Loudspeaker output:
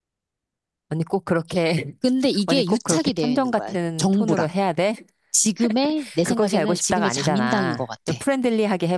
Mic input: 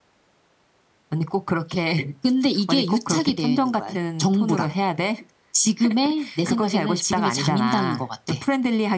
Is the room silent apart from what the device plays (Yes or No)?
Yes